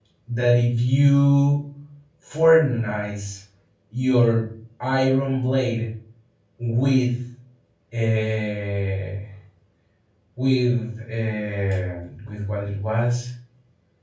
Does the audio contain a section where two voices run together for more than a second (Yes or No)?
No